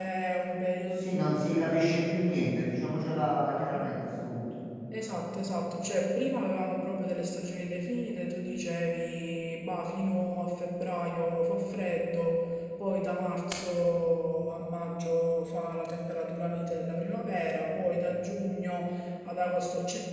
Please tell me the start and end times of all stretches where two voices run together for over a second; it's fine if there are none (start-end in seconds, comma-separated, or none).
none